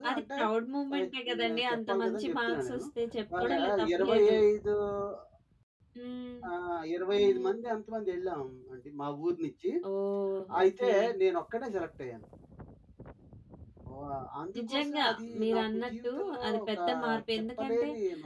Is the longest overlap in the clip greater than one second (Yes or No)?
Yes